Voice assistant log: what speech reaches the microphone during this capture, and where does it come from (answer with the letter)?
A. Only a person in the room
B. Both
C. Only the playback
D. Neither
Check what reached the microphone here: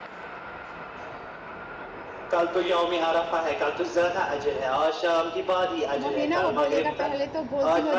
B